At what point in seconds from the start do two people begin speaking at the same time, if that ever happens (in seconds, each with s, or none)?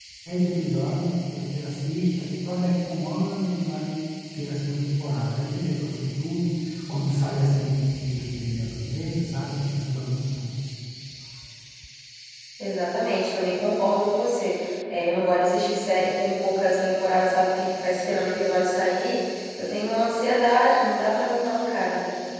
none